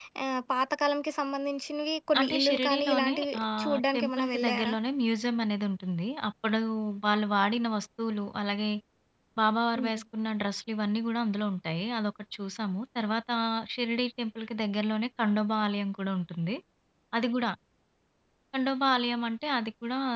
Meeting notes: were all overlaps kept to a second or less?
No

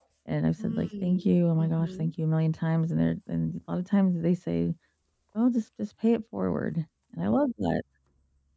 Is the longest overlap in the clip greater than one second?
Yes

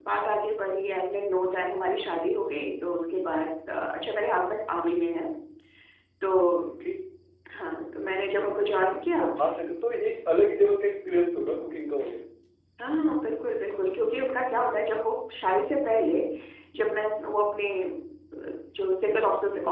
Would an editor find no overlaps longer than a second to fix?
Yes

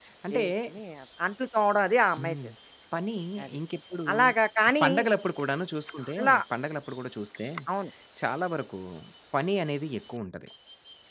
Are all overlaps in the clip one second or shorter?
Yes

